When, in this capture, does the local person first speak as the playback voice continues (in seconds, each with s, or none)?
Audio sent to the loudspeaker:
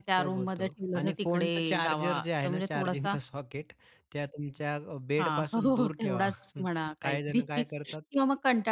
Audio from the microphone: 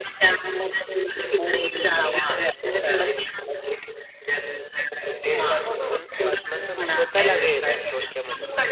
5.9 s